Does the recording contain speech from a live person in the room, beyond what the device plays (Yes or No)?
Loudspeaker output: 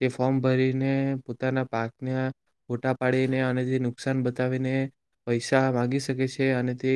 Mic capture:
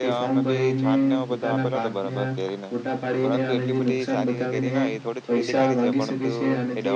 Yes